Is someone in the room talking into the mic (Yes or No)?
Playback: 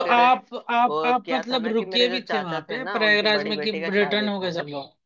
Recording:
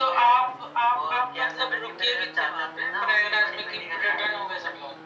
No